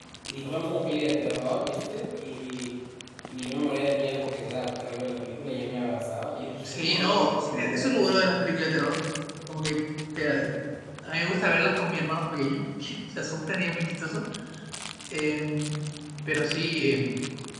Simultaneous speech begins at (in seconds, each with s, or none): 6.6 s